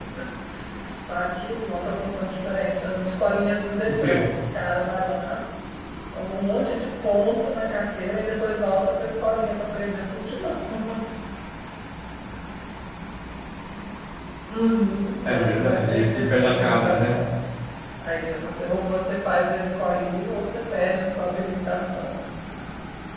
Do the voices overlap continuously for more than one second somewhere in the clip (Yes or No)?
Yes